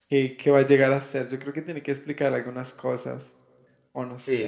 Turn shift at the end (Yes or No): Yes